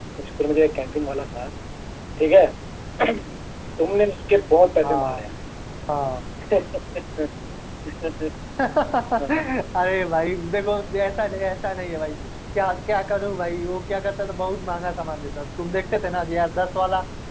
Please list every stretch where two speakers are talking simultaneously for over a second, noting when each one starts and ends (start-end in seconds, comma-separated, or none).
none